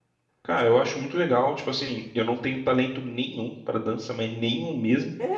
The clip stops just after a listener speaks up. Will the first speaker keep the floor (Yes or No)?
No